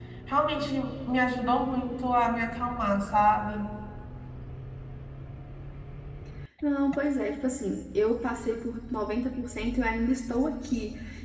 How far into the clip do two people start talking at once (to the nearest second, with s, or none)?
none